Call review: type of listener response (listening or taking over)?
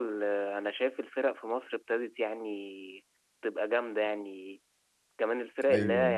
listening